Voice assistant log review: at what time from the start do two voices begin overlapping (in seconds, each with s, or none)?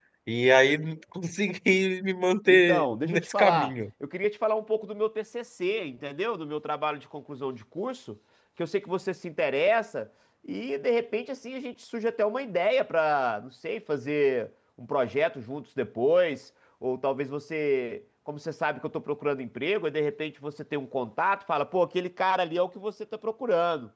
2.5 s